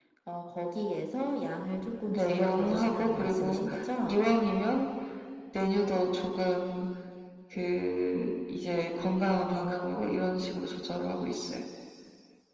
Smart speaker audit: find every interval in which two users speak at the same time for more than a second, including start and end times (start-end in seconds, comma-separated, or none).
2.1-3.6